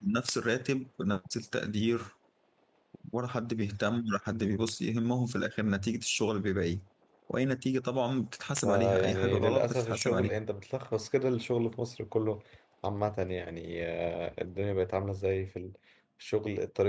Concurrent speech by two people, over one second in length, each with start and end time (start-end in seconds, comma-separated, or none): 8.6-10.4